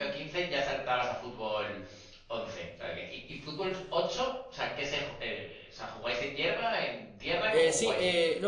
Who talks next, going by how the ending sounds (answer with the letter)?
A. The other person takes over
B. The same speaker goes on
A